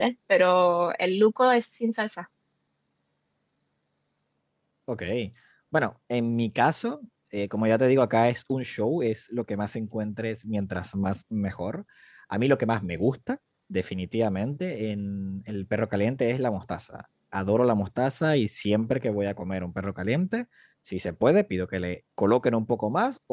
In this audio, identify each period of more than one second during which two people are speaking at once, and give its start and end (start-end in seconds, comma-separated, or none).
none